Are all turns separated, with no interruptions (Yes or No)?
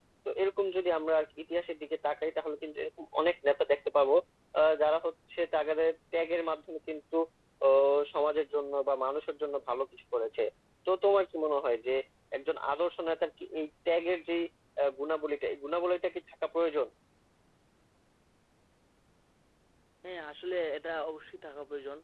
Yes